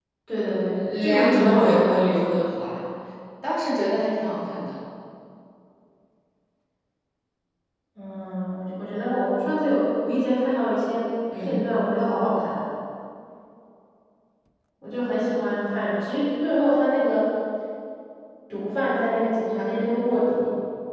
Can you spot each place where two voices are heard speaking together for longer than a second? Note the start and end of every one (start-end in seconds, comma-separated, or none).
1.1-2.4